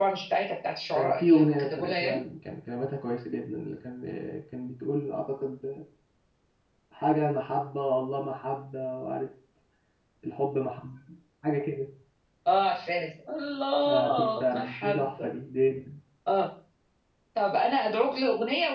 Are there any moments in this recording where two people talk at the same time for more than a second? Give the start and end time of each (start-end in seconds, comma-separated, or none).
0.9-2.2, 13.9-15.3